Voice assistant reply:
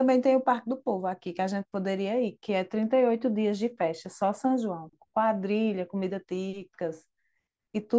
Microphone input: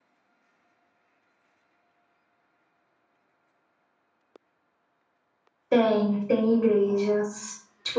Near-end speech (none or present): present